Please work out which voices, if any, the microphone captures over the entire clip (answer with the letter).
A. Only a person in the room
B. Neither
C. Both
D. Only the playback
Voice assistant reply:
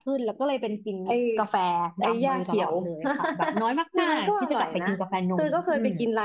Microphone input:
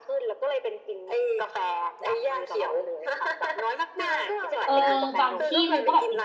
C